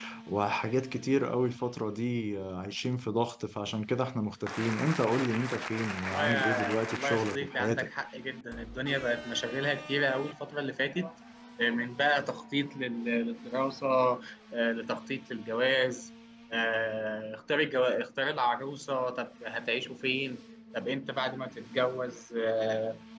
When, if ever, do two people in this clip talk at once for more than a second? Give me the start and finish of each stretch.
6.1-7.9

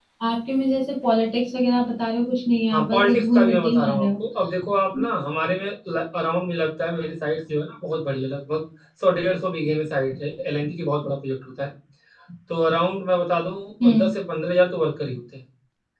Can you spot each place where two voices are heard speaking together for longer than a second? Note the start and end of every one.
2.7-4.1

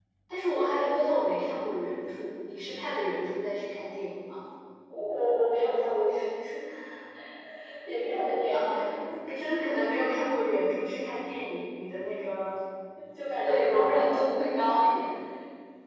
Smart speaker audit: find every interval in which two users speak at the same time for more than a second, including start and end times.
13.4-14.6

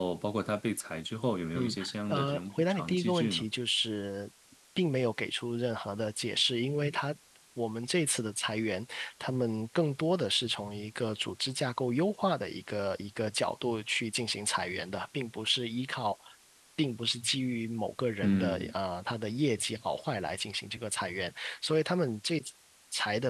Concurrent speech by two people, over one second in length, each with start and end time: 1.6-3.4

